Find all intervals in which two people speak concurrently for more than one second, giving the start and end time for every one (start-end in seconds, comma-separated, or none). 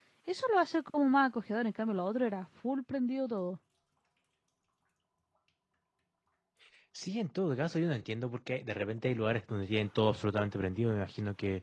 none